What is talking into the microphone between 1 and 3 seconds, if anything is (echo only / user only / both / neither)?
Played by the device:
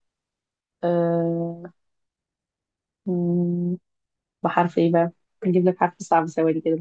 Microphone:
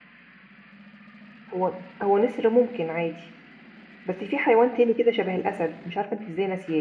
user only